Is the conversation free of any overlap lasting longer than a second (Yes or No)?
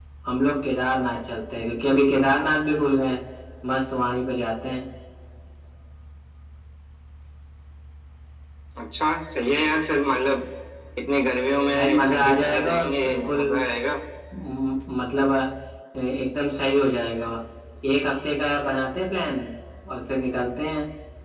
No